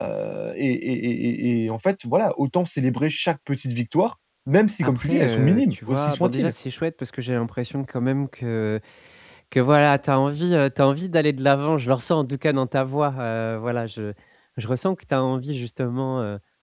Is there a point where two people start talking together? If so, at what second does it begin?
5 s

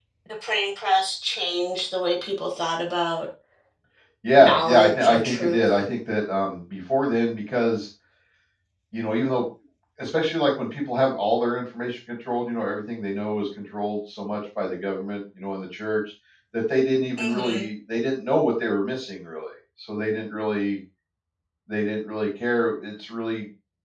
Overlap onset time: 4 s

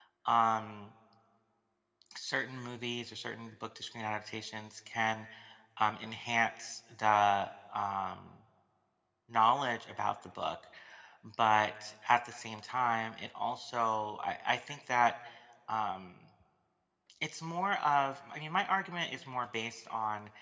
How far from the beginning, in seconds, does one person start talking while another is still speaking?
none

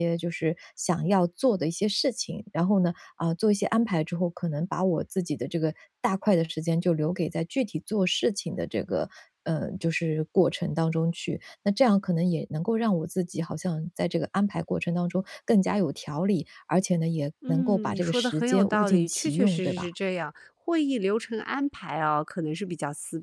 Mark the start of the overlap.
17 s

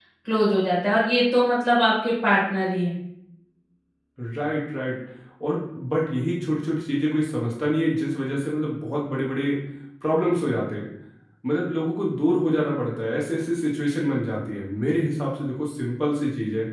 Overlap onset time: none

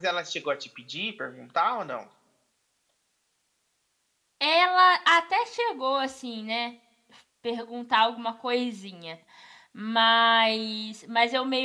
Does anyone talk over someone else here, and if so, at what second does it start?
none

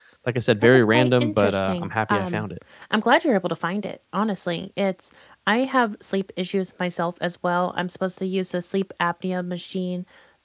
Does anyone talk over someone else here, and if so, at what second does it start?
1 s

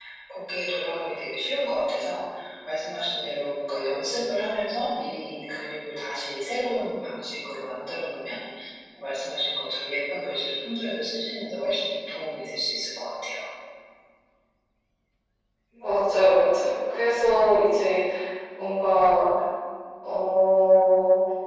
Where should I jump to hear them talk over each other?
none

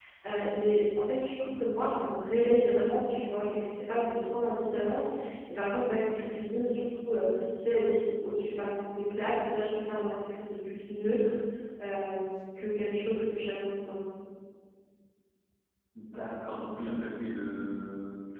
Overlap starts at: none

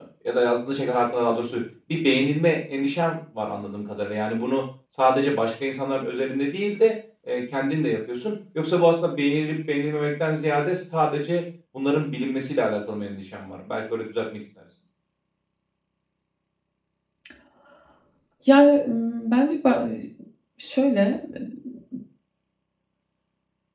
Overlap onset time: none

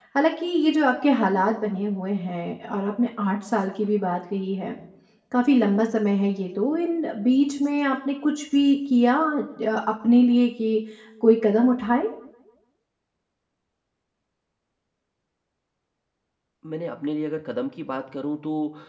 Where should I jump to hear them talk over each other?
none

